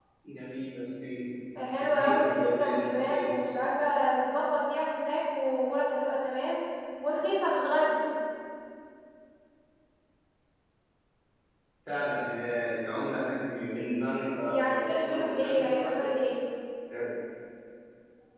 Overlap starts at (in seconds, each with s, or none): 1.6 s